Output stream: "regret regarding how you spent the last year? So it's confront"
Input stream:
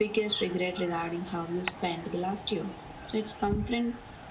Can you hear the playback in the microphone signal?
Yes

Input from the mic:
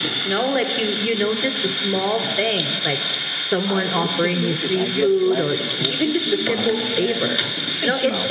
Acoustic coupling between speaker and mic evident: Yes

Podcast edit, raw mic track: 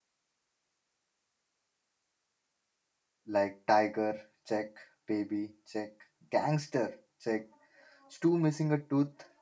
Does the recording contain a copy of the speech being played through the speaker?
No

